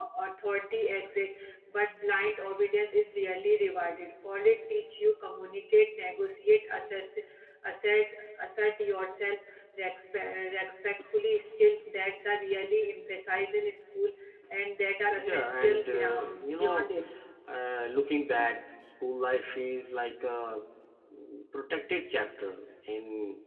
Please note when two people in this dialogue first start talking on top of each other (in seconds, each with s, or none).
15.1 s